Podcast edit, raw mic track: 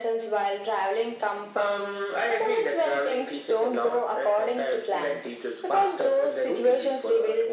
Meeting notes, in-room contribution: none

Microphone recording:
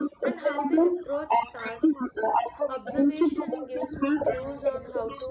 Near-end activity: present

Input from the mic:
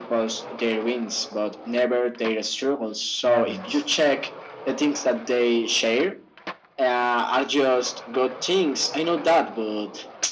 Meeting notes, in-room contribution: present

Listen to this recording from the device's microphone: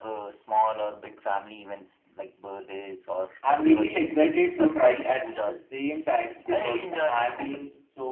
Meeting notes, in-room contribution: present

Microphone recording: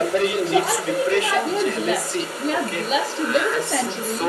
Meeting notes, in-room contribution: present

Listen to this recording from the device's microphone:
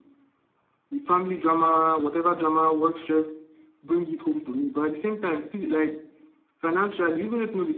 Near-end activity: none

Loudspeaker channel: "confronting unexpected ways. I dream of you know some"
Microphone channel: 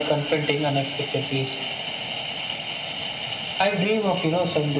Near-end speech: none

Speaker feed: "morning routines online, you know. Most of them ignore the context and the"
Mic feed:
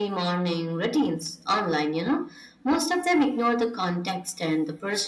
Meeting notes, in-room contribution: none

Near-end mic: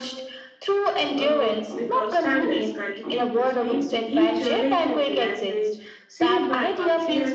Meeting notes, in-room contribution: present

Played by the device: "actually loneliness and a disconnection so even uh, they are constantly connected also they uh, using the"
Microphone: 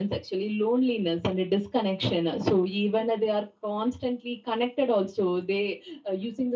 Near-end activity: none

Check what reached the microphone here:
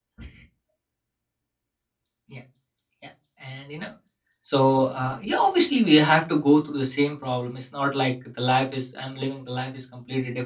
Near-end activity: present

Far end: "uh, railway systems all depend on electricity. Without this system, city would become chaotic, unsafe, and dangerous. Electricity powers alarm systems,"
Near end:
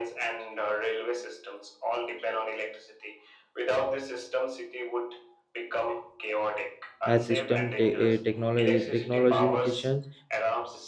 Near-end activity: present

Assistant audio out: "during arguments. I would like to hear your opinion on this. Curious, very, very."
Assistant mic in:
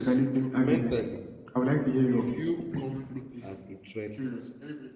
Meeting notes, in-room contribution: present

